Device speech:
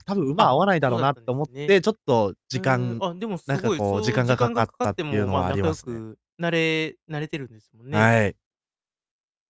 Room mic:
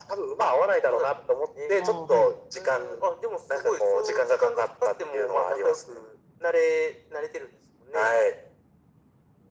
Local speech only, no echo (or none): ああ、はい。